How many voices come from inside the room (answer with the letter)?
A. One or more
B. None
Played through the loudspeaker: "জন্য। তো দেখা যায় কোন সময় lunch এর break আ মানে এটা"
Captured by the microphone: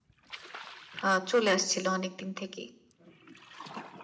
A